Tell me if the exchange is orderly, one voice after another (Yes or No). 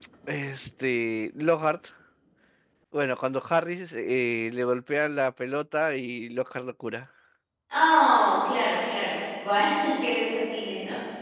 Yes